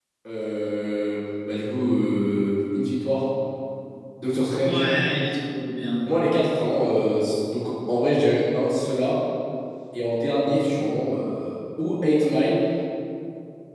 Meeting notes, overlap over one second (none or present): none